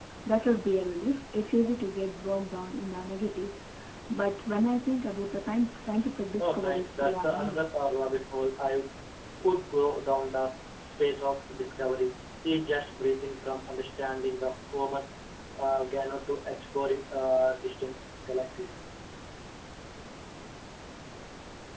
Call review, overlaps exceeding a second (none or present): present